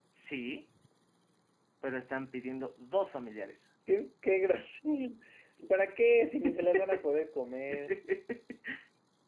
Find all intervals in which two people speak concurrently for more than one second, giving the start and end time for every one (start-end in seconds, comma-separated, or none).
none